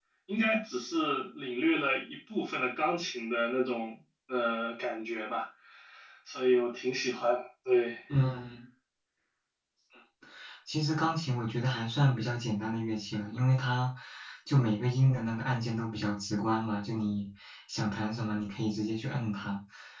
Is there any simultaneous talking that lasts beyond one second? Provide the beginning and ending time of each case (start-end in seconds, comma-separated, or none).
none